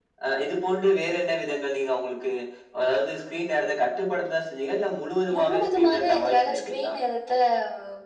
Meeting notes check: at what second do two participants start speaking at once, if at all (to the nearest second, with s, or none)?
5 s